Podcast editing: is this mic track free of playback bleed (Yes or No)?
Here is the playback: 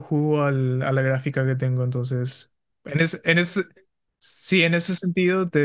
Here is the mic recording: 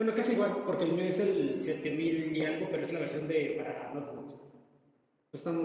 Yes